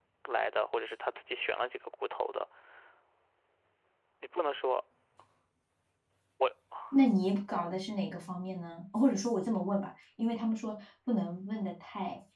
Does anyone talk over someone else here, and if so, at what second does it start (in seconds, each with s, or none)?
none